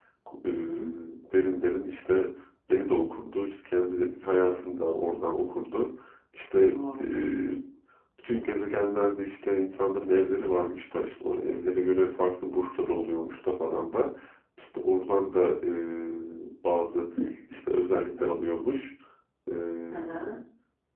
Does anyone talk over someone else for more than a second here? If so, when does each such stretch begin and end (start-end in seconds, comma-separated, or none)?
none